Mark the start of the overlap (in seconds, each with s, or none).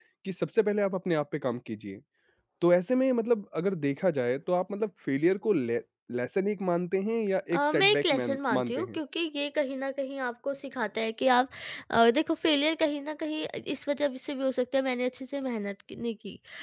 7.5 s